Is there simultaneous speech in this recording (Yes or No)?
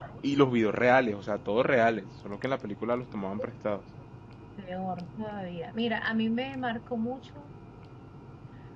No